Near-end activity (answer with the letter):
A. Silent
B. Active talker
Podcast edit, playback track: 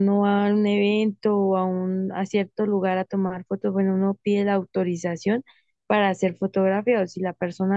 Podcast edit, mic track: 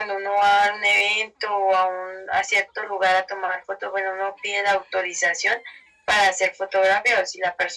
A